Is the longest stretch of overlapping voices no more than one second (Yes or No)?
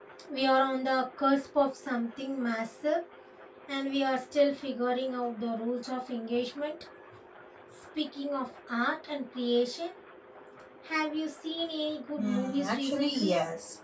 No